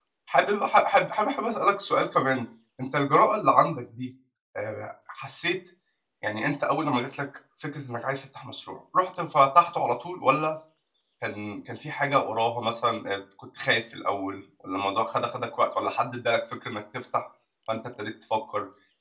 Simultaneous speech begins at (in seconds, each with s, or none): none